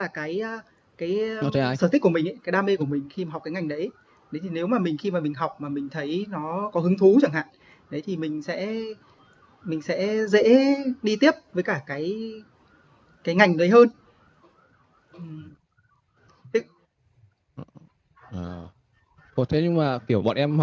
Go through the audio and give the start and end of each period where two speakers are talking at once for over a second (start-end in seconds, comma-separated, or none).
none